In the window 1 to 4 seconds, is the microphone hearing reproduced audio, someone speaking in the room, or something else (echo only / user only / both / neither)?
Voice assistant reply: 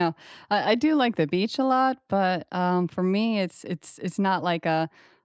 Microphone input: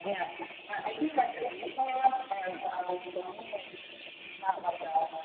echo only